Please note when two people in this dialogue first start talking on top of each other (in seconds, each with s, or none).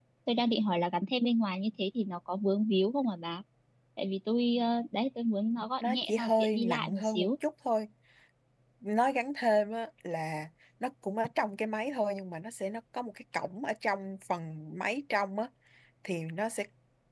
5.8 s